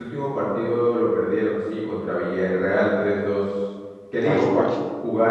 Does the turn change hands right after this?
No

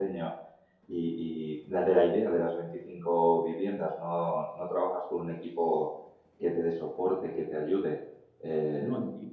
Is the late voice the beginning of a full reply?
No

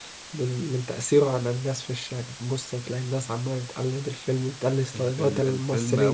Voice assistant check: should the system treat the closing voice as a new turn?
Yes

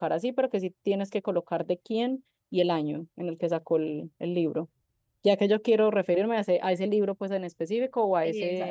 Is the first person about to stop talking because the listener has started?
Yes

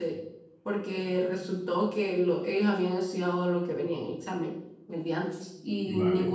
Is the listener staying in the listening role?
Yes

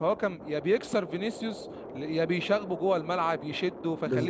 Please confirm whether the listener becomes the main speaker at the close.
Yes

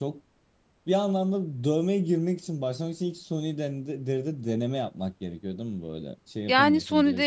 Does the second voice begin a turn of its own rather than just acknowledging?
Yes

